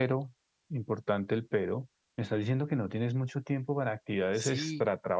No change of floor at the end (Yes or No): No